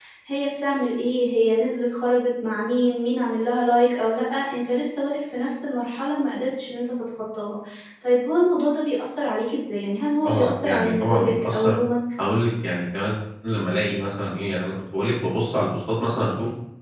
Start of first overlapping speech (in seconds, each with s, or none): 10.2 s